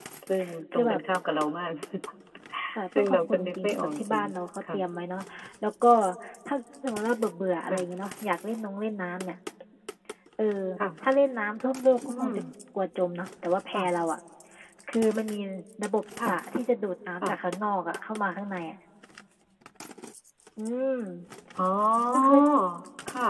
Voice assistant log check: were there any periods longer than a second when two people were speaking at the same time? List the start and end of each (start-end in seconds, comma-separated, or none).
3.0-4.2